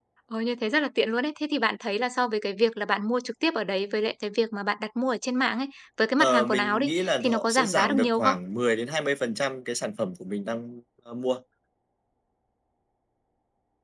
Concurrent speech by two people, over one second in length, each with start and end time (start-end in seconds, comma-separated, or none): 6.2-8.3